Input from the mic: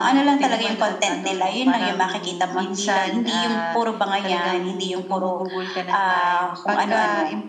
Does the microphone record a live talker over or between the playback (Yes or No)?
No